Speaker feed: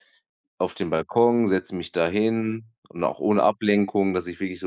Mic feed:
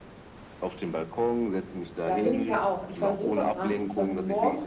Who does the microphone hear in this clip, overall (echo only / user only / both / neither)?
both